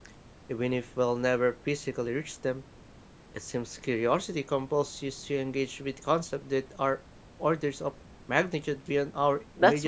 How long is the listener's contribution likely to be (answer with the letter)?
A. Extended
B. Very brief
A